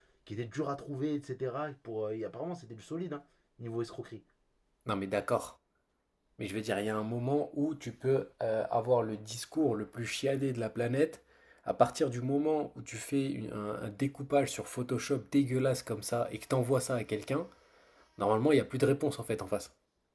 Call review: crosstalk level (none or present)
none